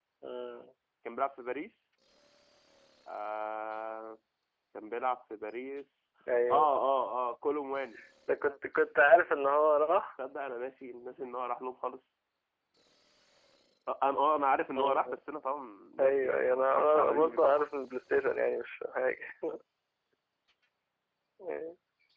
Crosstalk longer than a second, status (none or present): present